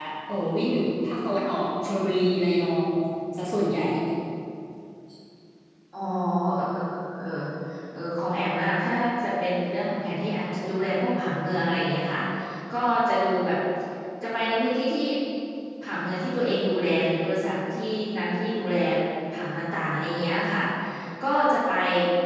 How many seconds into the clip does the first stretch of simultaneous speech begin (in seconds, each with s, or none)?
none